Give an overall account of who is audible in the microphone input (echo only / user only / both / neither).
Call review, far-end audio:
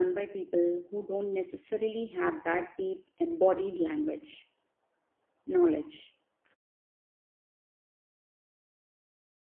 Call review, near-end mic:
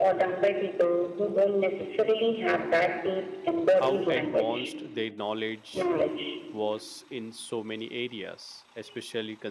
both